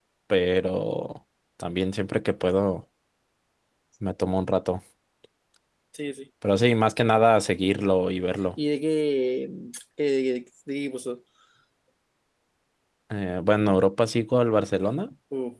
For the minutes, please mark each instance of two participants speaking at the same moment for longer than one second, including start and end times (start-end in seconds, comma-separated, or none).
none